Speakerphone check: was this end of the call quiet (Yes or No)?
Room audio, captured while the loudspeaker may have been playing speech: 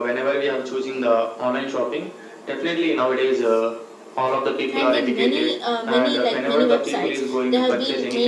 No